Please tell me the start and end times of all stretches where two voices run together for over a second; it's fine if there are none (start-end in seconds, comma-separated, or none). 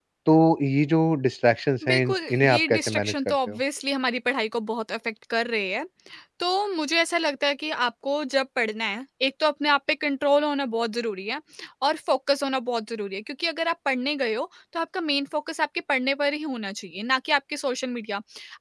1.9-3.6